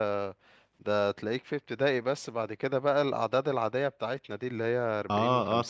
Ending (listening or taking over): taking over